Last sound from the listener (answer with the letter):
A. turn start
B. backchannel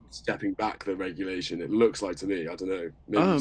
A